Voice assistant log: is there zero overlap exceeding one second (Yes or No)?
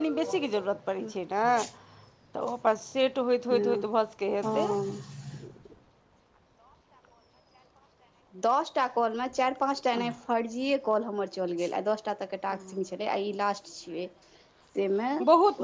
Yes